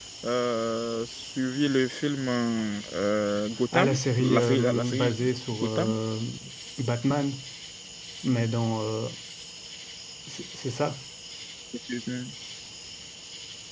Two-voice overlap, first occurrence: 3.7 s

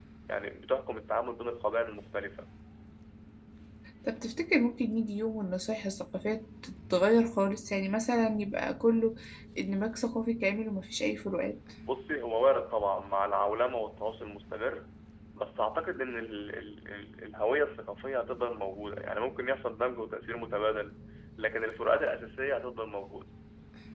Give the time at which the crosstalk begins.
none

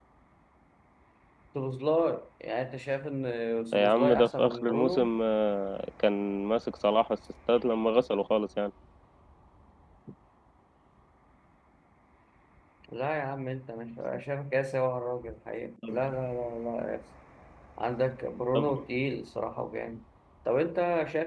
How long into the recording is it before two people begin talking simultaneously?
3.7 s

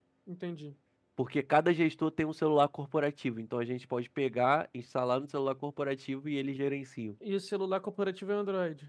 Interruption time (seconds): none

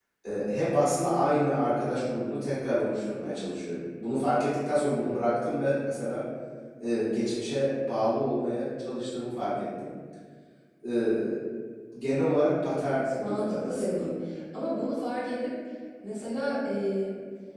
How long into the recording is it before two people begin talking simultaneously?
12.8 s

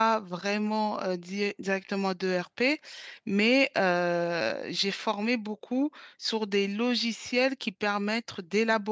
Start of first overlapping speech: none

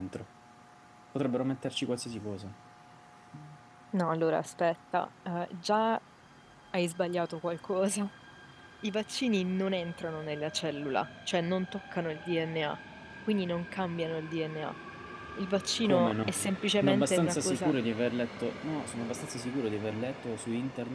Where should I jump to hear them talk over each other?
15.8 s

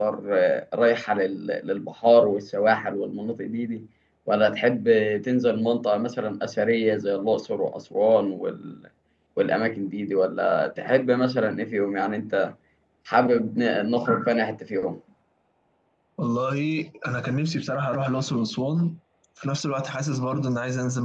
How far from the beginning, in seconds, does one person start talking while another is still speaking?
none

